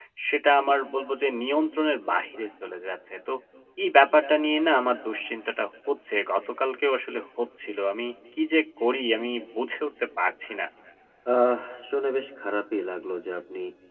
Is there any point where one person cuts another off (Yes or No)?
No